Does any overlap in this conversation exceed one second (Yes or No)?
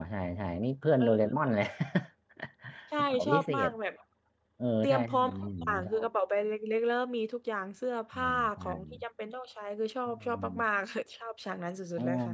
Yes